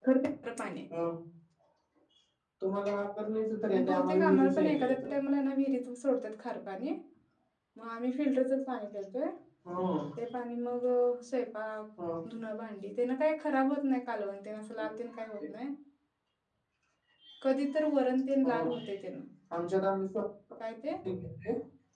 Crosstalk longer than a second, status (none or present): present